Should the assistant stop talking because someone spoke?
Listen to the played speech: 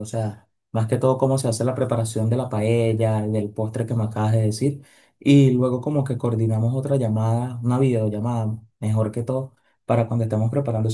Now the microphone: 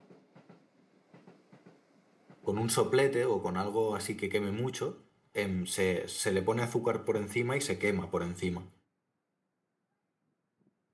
Yes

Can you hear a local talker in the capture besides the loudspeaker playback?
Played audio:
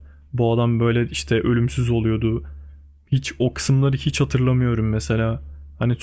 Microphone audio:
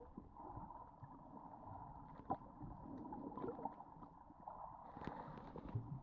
No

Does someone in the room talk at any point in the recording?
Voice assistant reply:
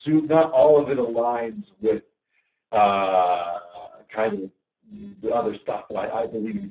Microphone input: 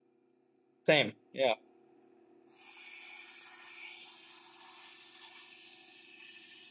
Yes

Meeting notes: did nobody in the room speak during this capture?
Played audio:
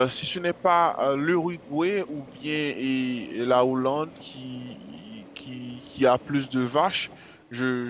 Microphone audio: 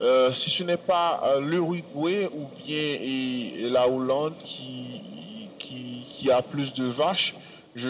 Yes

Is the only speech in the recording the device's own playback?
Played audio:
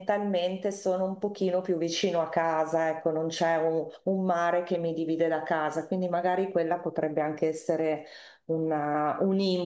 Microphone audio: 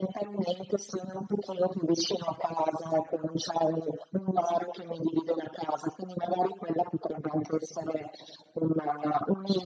Yes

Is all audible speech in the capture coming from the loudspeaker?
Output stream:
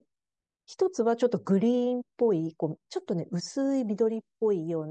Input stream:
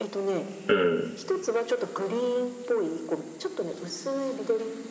No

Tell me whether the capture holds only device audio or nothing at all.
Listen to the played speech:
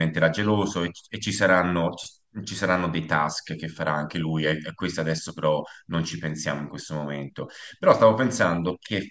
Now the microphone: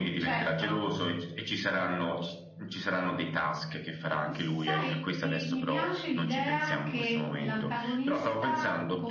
No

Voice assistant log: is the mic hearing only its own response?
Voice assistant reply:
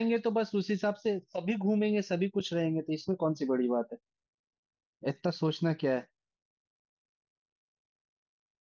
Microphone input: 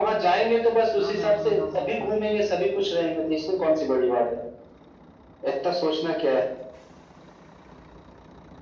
No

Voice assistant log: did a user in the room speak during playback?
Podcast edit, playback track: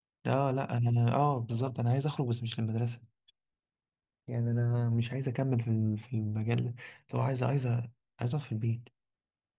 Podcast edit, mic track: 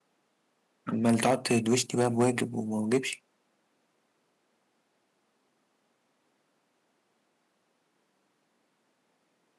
Yes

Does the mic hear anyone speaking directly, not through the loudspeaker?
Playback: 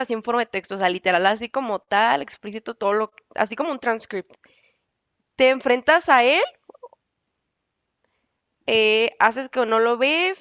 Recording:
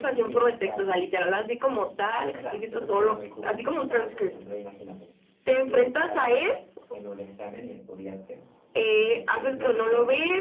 Yes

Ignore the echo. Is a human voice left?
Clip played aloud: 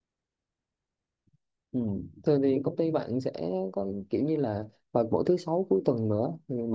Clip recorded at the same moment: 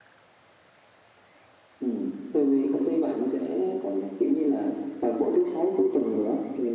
No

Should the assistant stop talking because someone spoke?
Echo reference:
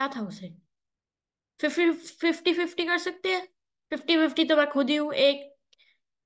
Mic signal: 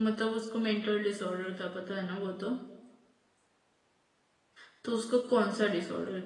Yes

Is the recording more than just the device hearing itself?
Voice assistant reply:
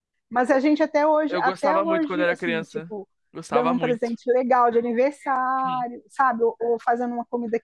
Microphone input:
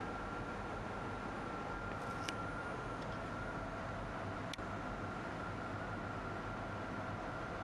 No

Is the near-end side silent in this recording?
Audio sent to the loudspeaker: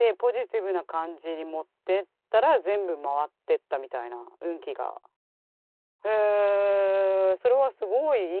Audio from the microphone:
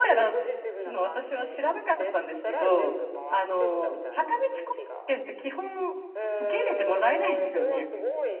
No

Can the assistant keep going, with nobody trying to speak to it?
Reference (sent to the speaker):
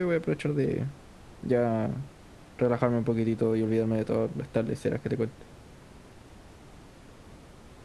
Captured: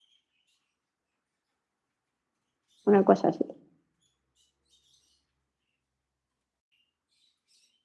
No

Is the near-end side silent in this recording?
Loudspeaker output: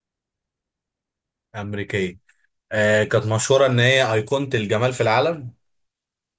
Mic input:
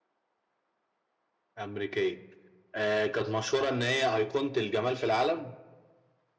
Yes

